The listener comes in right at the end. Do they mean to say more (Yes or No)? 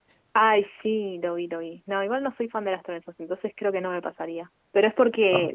No